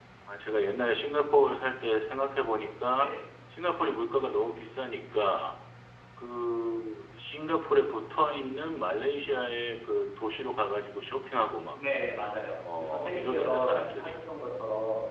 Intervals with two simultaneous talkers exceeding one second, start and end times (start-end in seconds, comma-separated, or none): 12.8-14.1